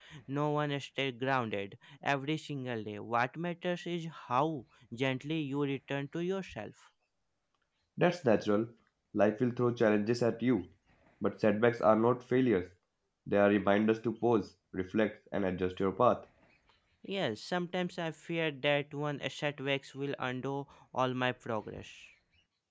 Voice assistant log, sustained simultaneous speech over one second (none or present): none